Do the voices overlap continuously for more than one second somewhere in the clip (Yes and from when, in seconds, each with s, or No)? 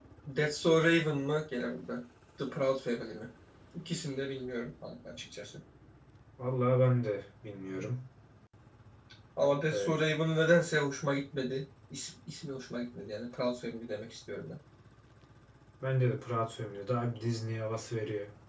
No